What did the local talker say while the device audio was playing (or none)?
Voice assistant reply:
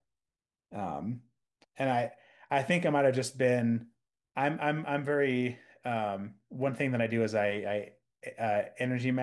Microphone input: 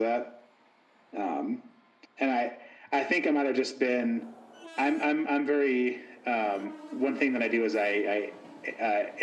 none